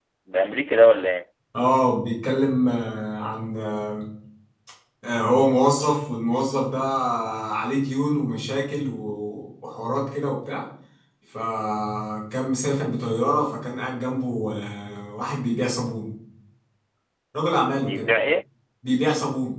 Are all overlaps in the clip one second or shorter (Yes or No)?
Yes